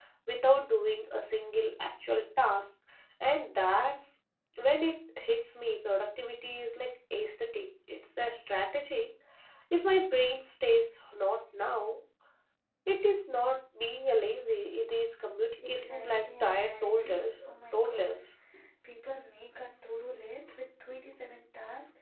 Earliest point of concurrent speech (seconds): 15.7 s

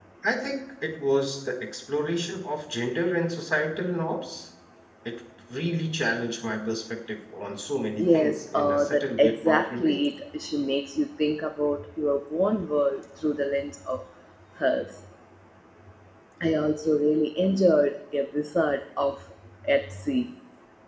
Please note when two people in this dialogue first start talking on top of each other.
8.0 s

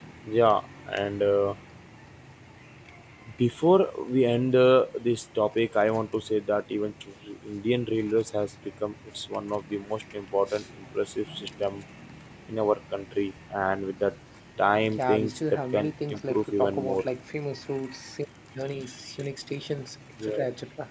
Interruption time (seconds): 15.0 s

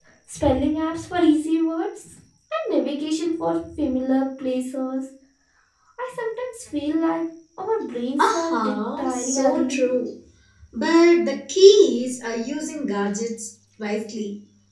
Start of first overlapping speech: 8.2 s

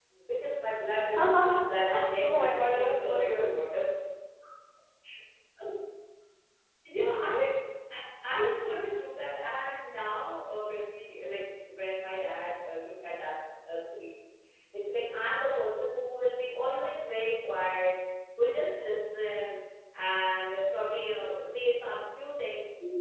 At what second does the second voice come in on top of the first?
1.1 s

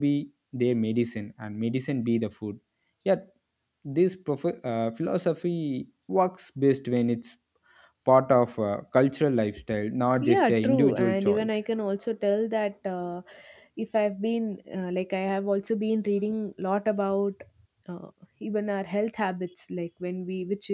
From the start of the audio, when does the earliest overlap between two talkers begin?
10.2 s

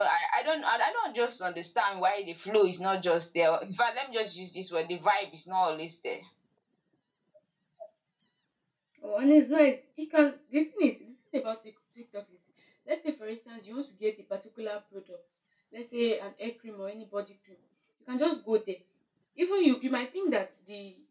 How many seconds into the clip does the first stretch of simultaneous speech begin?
none

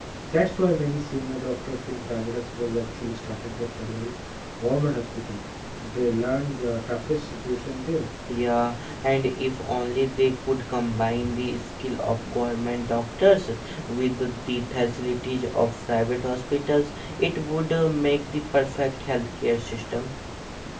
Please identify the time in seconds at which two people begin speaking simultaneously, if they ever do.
none

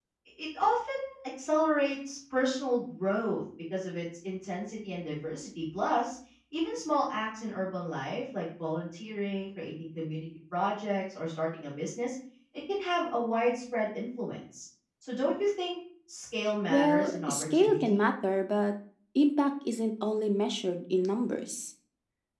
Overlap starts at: 16.7 s

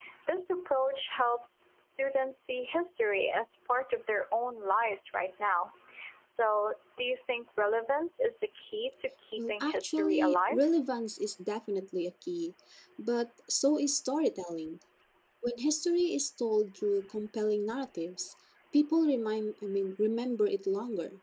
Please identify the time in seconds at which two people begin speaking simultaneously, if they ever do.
9.4 s

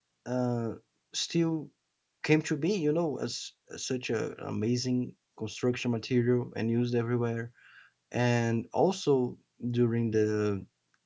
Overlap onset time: none

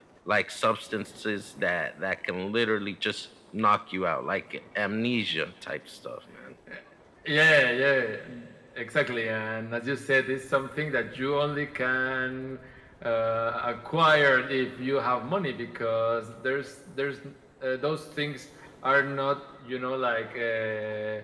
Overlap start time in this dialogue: none

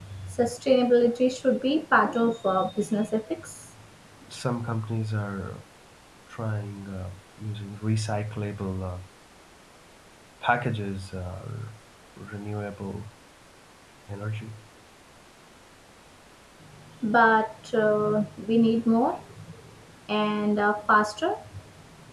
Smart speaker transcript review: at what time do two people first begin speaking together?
none

